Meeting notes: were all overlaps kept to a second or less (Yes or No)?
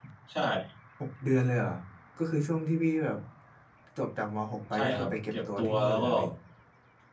No